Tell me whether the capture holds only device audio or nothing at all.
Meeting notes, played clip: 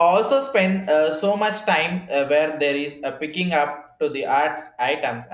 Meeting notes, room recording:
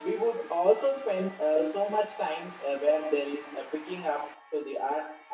Yes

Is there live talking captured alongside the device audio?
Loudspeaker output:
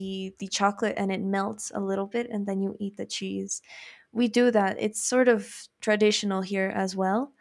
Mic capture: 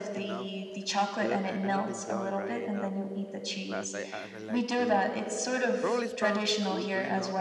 Yes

